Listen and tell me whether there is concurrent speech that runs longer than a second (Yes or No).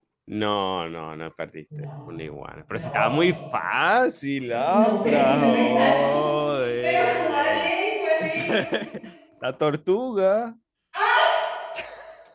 Yes